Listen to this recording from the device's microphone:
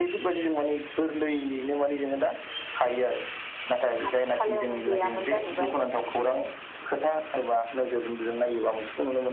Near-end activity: present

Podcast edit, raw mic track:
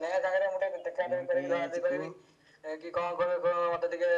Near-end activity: present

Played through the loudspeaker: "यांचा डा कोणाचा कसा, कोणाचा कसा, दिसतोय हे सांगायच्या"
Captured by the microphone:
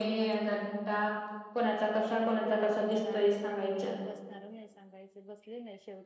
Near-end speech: present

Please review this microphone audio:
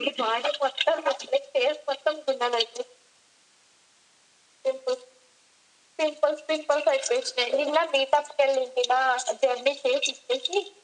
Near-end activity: none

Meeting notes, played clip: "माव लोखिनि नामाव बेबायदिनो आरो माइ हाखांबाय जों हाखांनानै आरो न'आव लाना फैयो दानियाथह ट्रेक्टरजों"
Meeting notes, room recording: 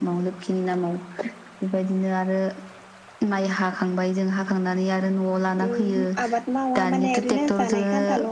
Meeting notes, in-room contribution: present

